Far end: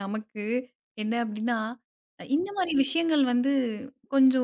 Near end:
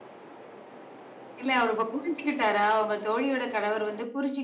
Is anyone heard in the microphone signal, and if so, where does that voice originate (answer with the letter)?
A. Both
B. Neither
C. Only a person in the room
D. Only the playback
C